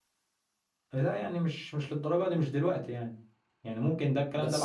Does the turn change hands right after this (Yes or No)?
Yes